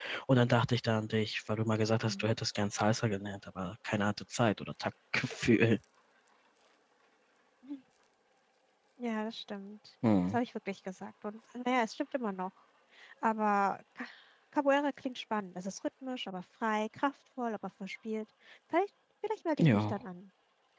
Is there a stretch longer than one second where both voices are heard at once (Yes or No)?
No